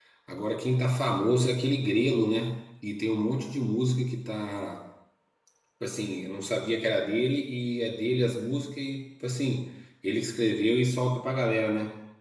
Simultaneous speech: No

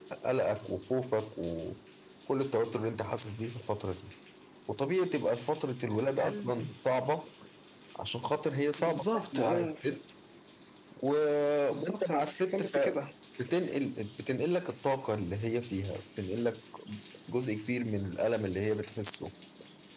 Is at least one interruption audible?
Yes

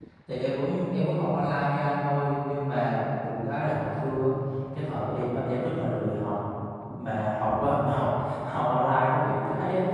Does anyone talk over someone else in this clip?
No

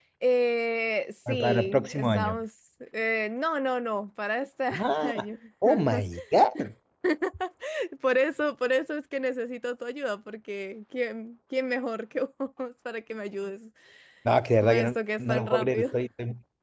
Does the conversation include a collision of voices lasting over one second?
Yes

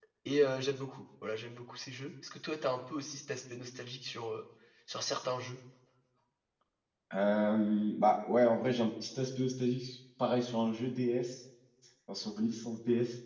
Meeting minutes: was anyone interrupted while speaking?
No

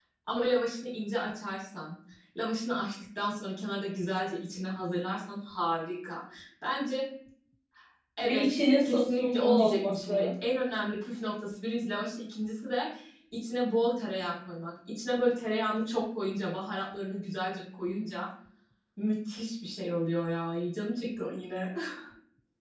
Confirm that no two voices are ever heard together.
No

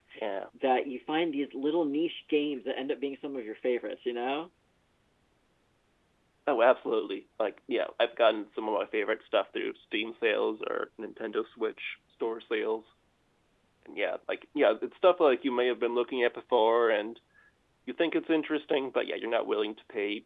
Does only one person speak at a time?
Yes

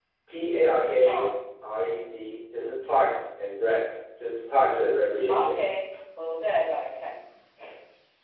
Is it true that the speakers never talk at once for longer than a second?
Yes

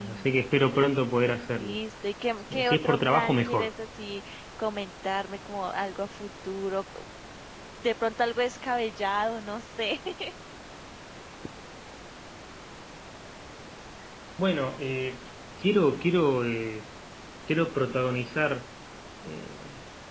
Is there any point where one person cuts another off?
Yes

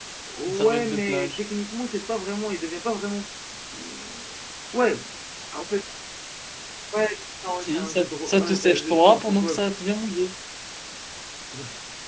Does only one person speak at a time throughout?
No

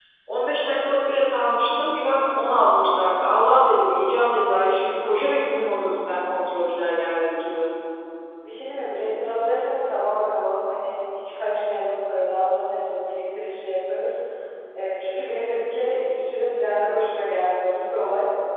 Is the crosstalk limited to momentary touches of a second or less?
Yes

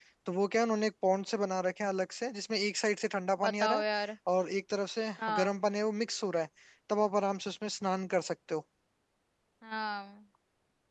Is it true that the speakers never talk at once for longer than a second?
Yes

